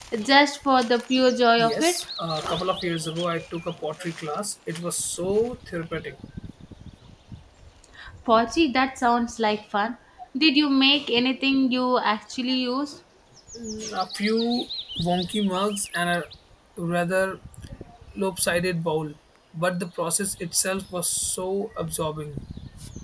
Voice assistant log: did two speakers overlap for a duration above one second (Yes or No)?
No